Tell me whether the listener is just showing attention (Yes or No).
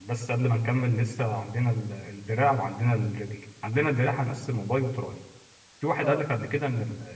Yes